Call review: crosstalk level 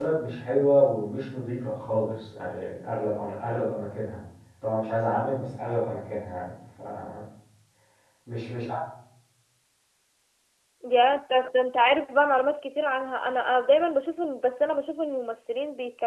none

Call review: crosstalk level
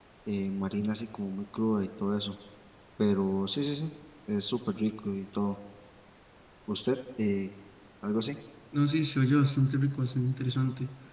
none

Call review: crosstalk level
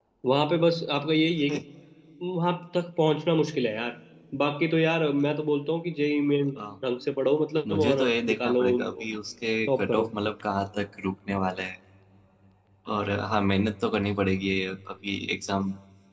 present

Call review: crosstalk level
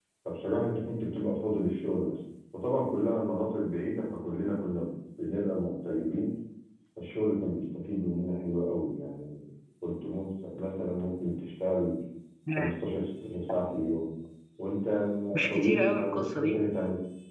present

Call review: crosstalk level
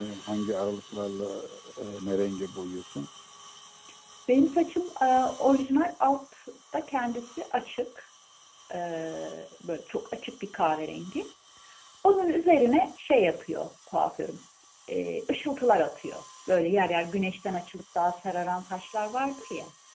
none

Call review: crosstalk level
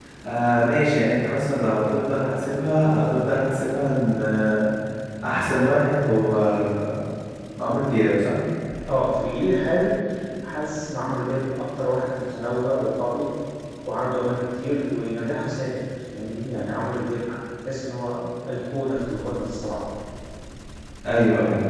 none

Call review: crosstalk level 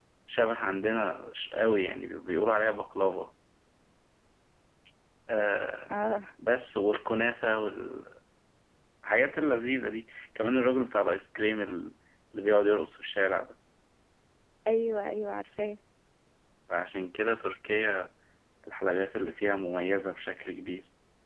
none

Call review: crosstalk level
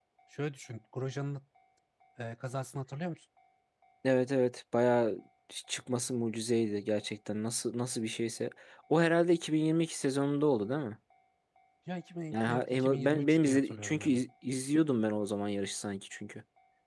present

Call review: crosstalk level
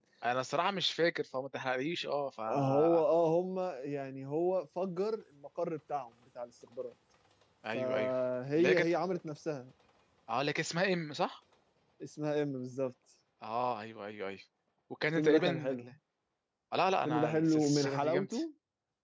present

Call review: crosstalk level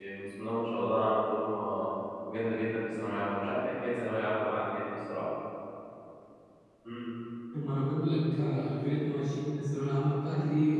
none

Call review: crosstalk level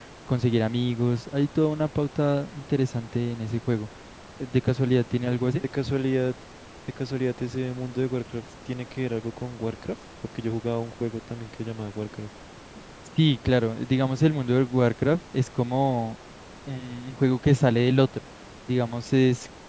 none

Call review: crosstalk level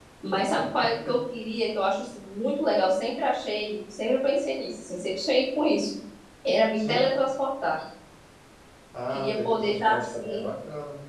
present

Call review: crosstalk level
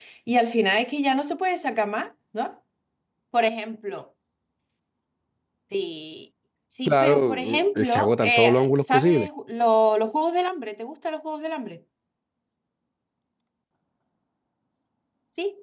present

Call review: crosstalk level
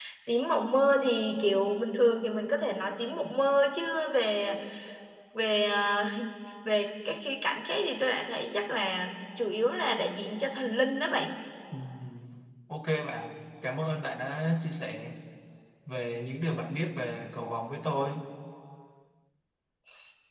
none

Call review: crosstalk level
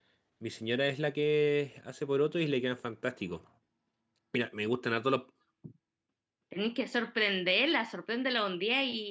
none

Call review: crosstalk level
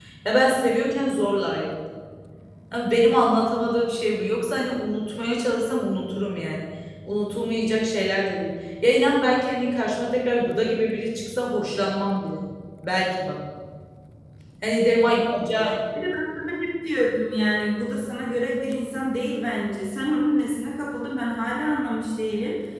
none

